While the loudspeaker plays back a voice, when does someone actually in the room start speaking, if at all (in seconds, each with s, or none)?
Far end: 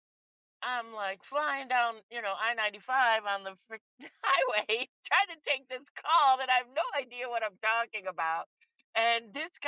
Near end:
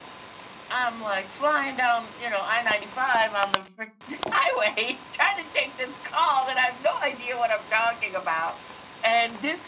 none